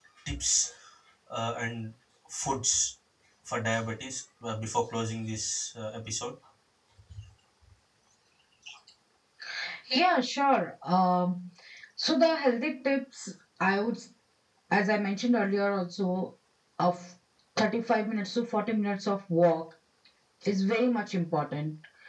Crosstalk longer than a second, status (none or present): none